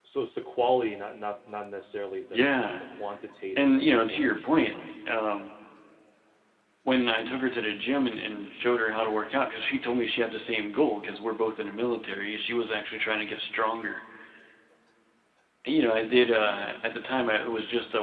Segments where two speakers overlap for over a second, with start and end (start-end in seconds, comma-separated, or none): 3.6-4.8